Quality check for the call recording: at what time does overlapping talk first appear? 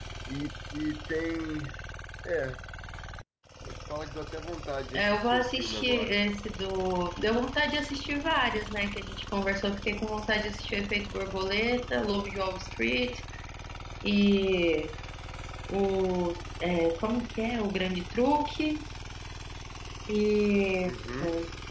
4.9 s

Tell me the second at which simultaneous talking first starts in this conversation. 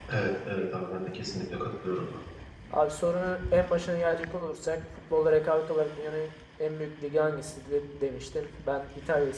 none

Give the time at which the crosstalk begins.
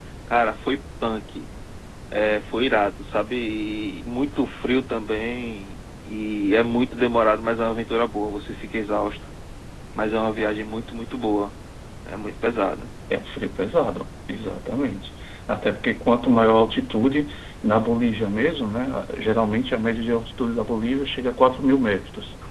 none

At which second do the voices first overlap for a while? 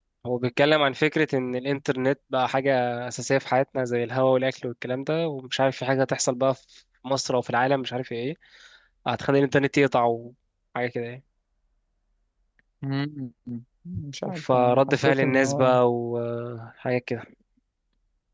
14.3 s

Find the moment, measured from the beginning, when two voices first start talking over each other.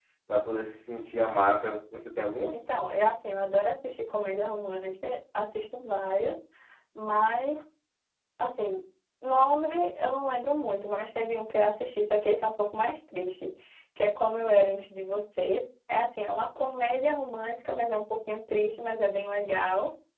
none

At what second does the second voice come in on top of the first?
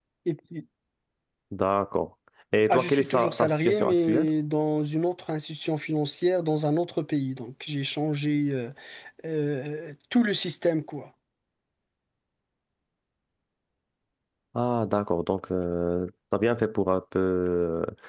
2.7 s

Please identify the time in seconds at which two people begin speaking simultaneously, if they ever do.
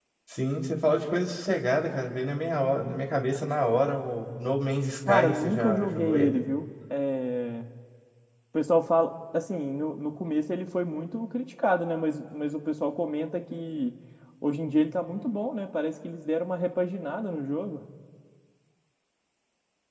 5.1 s

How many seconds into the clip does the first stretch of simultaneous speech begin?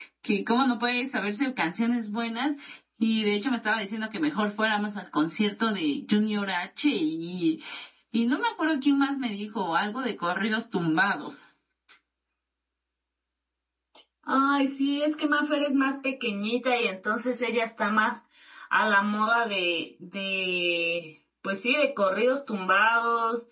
none

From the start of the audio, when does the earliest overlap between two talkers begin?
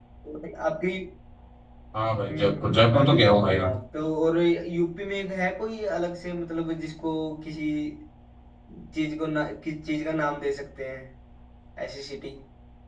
2.3 s

